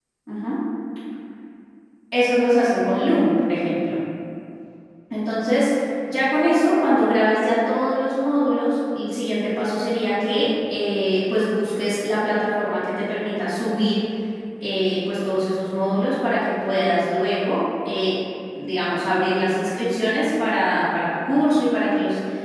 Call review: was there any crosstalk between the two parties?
No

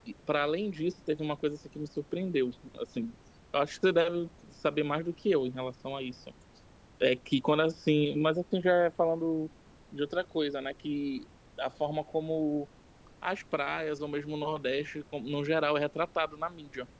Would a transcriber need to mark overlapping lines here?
No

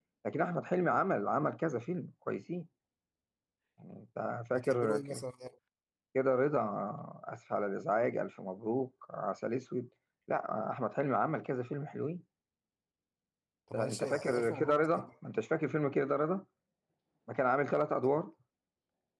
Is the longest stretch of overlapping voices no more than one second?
No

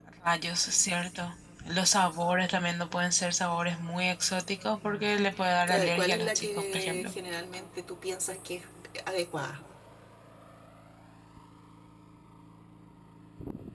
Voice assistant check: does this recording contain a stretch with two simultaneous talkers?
Yes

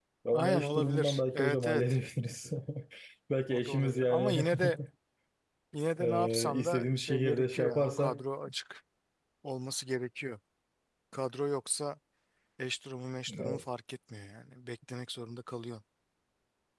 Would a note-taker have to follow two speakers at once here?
Yes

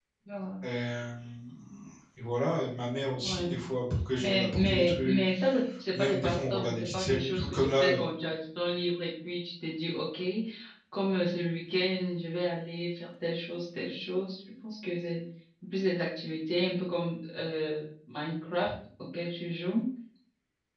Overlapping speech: Yes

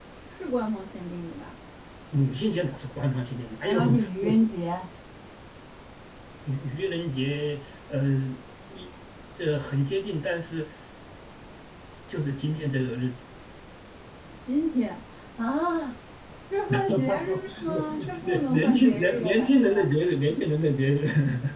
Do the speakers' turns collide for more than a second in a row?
Yes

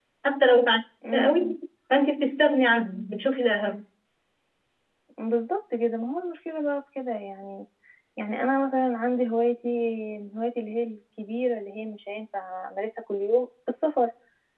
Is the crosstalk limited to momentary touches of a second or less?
Yes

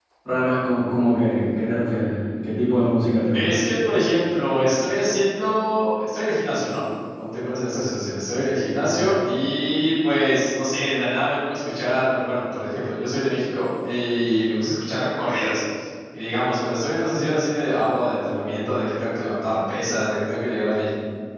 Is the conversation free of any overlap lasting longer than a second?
Yes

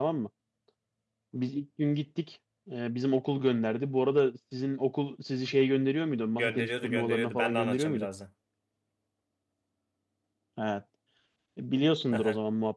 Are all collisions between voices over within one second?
No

